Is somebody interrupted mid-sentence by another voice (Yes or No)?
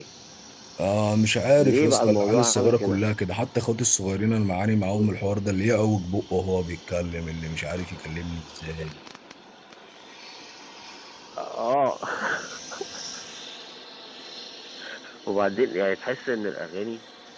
Yes